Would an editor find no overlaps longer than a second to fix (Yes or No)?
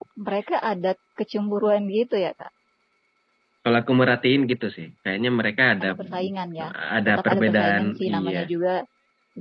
No